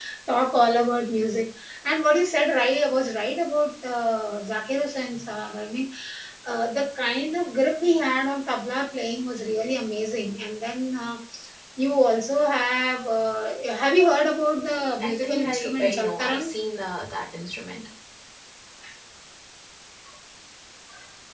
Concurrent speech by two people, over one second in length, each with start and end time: 14.6-16.5

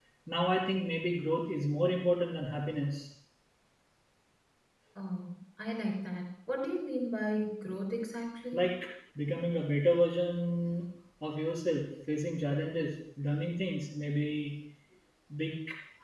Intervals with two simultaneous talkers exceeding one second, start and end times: none

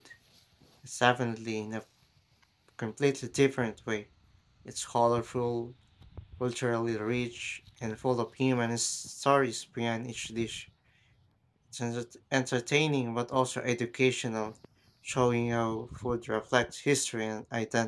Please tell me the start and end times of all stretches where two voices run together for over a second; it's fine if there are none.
none

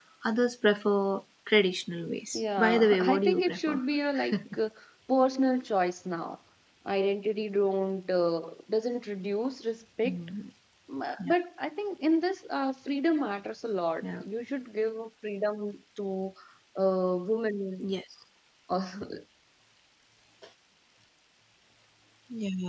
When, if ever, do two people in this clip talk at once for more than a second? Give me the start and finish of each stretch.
2.3-3.8

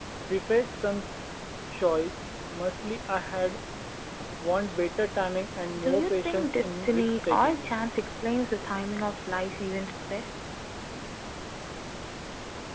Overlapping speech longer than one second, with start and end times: 5.8-7.7

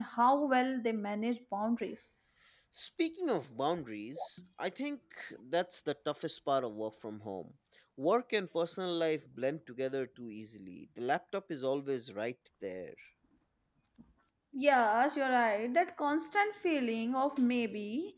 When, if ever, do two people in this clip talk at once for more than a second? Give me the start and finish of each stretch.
none

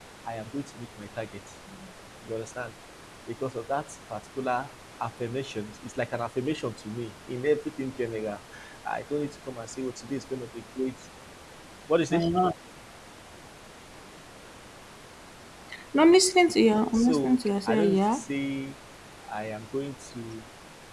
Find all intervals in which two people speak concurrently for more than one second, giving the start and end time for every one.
16.9-18.2

